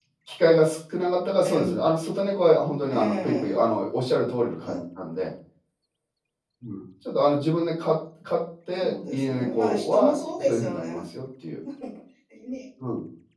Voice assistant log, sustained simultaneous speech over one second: present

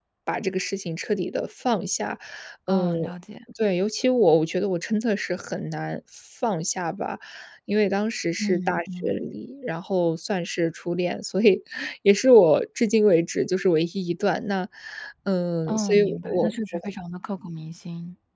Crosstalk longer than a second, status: present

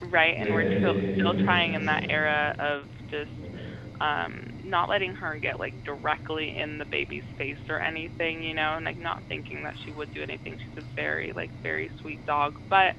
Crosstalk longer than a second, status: present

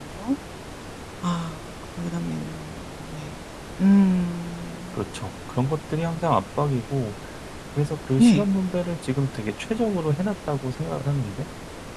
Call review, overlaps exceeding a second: none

